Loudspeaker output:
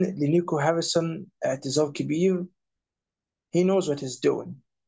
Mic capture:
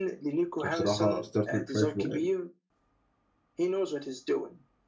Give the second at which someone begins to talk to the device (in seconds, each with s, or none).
0.6 s